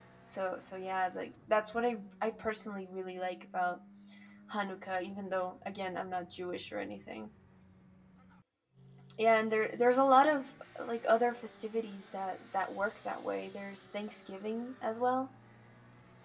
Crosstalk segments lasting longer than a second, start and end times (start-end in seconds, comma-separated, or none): none